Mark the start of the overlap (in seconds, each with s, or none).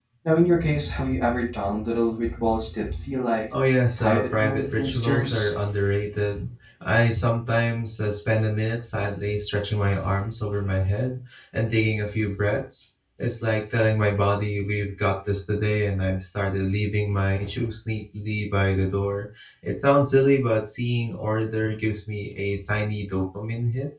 4.0 s